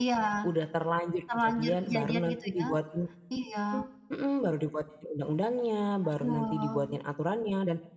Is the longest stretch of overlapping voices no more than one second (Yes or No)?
No